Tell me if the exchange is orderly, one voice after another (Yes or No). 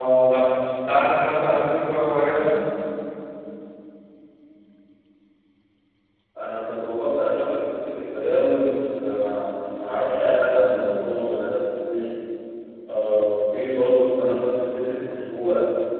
Yes